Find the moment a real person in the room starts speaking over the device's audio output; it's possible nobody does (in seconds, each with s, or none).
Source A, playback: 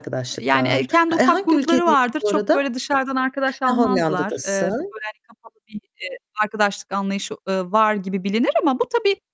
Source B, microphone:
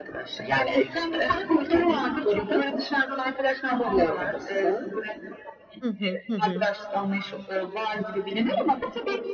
5.8 s